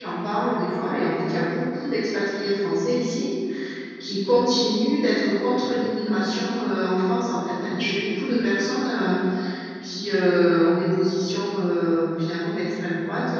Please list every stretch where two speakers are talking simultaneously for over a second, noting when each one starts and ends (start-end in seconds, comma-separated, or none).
none